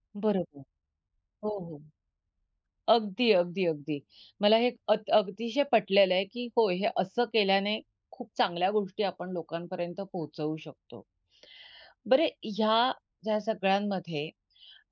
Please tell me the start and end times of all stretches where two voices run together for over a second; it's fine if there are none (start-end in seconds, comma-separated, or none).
none